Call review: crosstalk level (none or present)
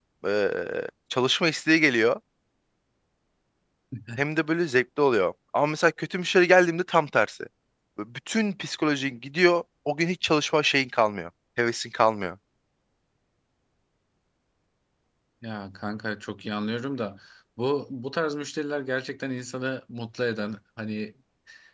none